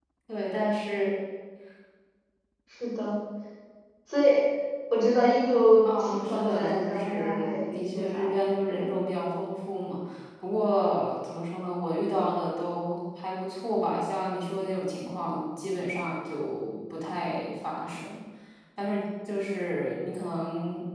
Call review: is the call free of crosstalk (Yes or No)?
No